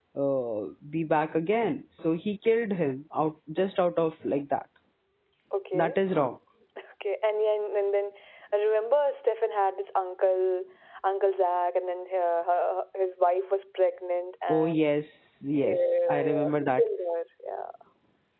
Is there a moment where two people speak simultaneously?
Yes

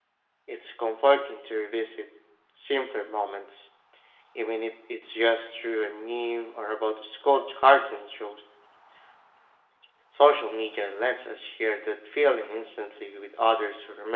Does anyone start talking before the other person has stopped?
No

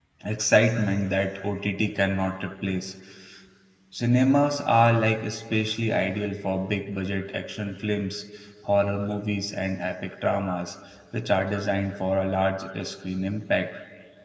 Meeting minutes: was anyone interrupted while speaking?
No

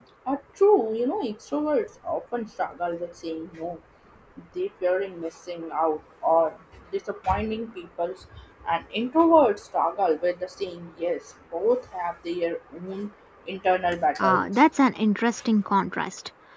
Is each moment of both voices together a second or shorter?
Yes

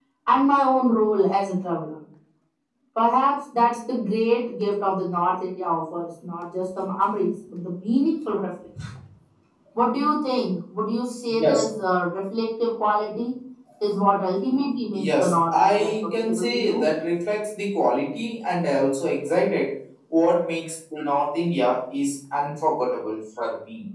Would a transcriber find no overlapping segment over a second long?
No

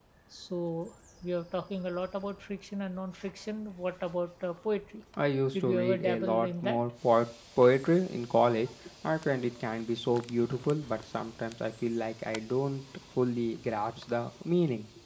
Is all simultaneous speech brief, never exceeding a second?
No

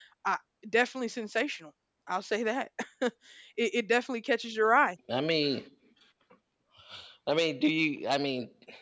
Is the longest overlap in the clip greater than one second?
No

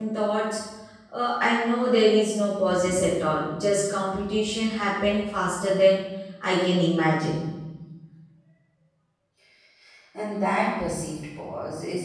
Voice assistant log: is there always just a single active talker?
Yes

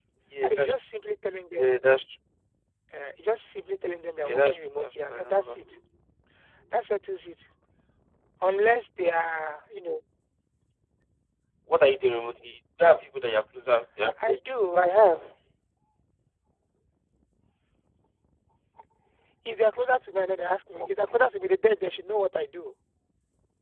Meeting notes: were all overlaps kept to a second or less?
No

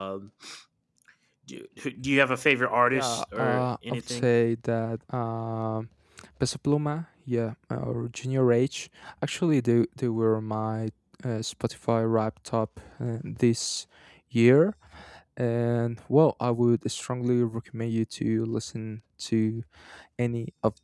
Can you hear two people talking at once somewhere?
Yes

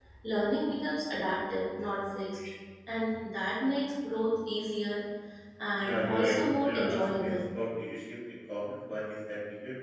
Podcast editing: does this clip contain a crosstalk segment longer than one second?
Yes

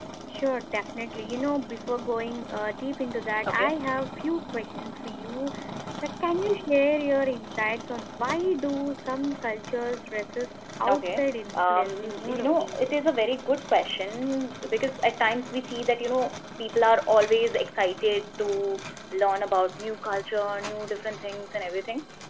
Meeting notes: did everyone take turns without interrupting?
No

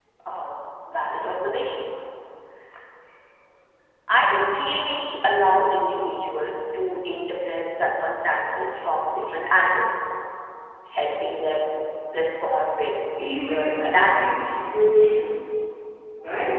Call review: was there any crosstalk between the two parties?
Yes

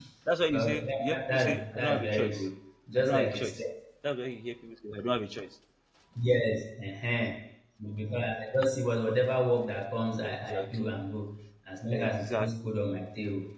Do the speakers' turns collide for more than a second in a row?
Yes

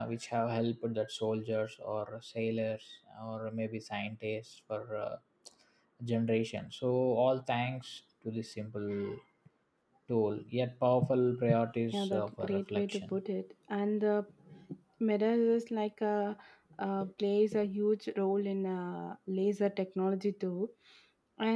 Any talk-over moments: Yes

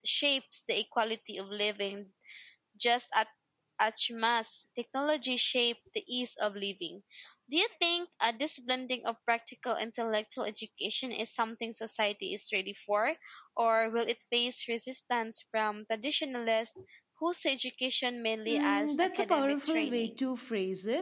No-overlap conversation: No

